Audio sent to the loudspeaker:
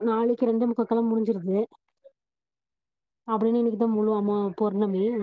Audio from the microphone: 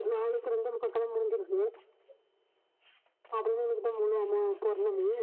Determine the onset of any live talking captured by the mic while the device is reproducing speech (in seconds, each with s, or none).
none